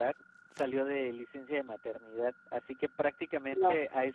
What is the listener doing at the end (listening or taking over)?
listening